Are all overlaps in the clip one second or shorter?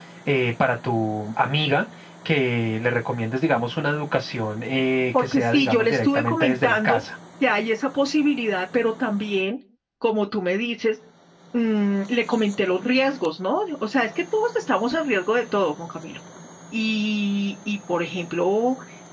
No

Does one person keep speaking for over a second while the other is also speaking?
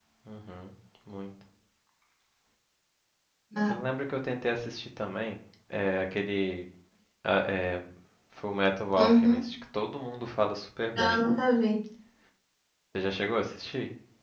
No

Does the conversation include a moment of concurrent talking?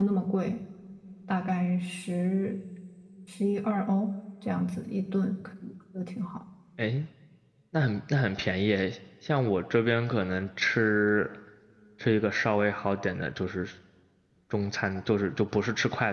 No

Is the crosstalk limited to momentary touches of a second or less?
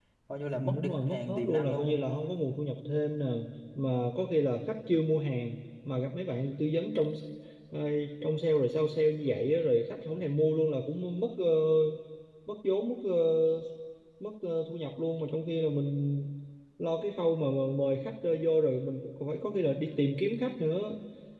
No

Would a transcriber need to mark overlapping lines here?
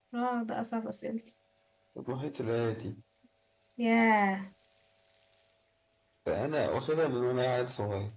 No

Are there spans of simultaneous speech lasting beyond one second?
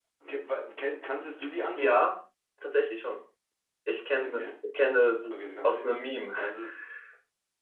No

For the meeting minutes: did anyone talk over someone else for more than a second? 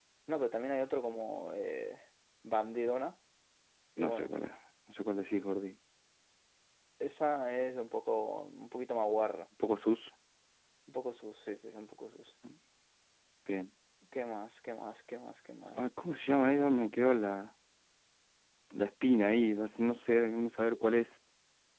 No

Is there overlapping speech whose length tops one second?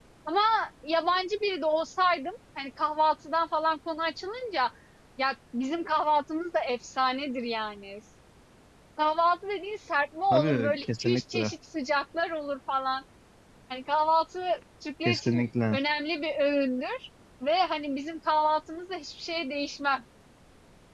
Yes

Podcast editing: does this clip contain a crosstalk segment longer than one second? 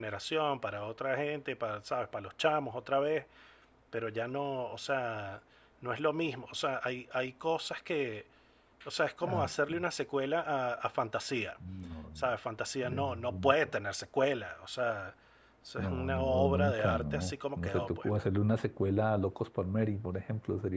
Yes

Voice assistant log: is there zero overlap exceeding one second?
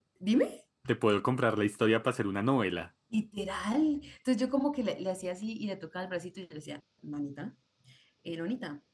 Yes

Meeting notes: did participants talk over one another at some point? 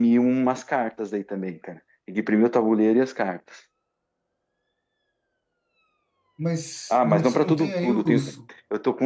Yes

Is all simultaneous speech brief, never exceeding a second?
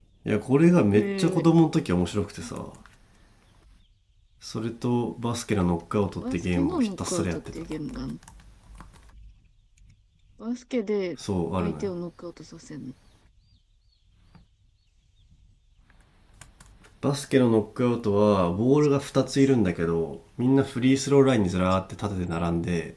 No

